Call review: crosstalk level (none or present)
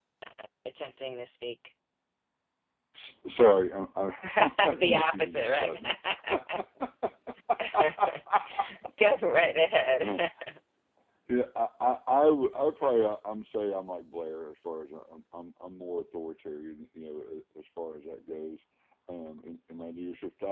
present